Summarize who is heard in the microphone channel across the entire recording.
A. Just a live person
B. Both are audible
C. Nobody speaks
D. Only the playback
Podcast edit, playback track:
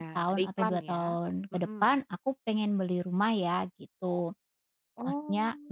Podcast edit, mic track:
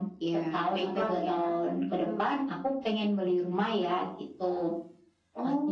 D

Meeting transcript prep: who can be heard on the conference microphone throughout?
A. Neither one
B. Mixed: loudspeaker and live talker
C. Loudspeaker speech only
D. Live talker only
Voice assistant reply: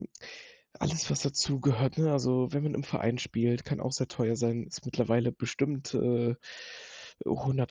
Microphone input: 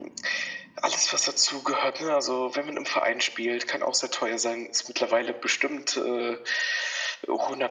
C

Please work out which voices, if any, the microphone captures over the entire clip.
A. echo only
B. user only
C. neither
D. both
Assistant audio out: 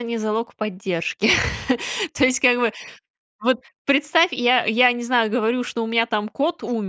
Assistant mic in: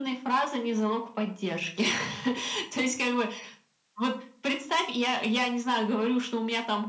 A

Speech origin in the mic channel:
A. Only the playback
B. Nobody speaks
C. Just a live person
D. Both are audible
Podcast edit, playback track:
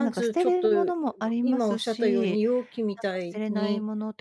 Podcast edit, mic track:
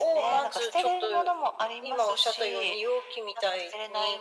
A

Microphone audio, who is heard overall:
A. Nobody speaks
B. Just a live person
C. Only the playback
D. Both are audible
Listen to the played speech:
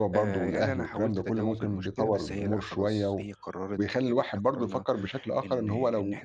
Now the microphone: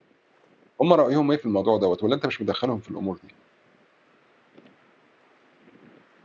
B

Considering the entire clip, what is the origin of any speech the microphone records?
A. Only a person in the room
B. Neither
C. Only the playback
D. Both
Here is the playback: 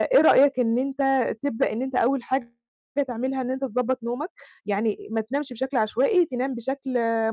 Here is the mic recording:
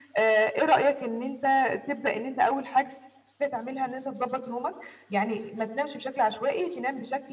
C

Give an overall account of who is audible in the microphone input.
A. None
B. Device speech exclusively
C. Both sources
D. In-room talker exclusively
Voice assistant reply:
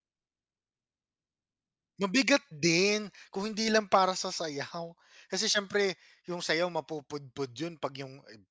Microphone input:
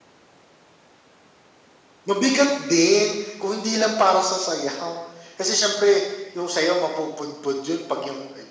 B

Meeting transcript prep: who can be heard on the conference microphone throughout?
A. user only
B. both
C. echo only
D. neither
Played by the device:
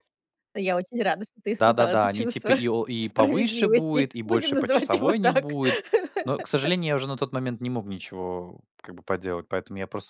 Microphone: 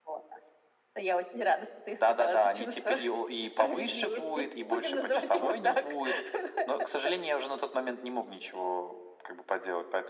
C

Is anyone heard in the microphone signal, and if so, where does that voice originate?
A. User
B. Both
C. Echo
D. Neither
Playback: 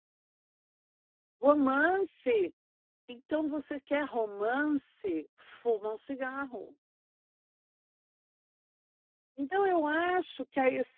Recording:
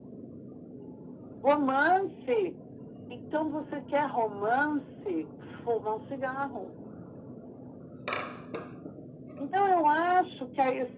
C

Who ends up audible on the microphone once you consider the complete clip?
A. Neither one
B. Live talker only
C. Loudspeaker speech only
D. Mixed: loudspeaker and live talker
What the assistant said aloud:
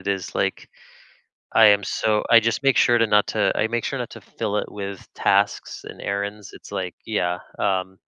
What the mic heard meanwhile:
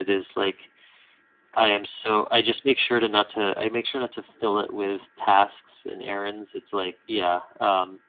C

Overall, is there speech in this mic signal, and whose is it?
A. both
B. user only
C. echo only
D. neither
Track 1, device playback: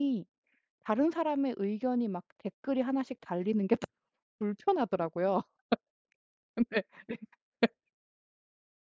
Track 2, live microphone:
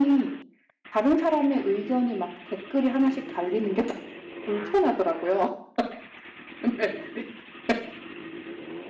C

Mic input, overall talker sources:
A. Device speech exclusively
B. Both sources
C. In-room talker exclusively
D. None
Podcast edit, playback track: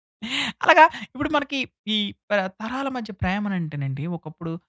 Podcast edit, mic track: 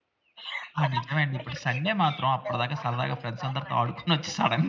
B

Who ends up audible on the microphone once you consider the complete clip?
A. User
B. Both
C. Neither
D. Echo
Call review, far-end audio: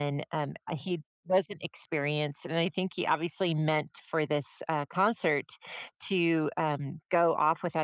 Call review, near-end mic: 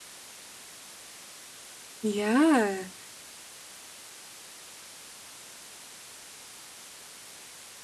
A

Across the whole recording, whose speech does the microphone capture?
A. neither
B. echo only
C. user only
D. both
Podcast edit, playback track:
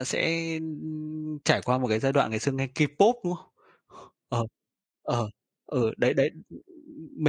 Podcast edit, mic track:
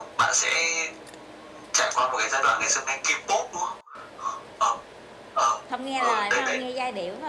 D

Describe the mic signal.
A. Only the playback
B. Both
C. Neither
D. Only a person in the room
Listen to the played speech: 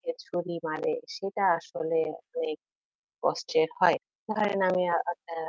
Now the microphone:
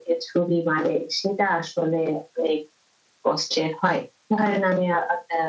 A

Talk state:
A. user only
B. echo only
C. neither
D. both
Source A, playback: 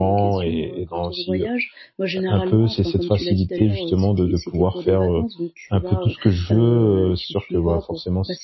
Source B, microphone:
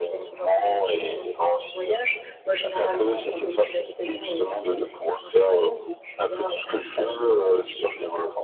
B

